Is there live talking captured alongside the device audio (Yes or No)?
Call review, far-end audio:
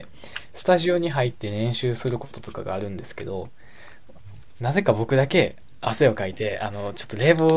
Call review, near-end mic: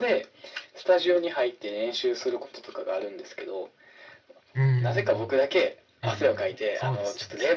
Yes